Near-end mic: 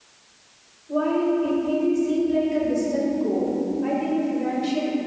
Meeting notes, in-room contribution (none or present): present